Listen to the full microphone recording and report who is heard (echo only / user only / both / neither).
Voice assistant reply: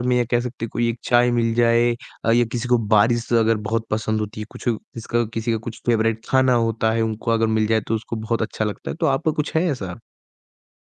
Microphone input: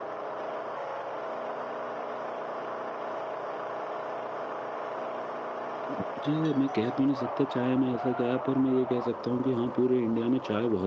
user only